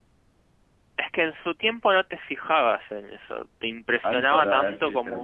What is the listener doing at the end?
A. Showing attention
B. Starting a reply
B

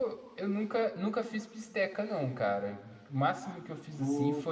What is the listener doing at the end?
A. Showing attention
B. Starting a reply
A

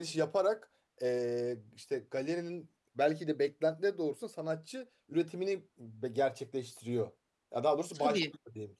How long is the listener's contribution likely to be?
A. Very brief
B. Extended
A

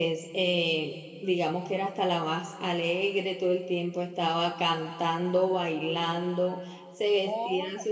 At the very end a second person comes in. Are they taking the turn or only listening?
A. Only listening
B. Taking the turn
A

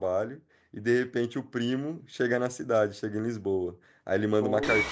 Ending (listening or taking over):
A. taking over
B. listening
B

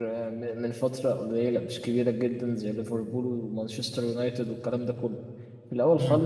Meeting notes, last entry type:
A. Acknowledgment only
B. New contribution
A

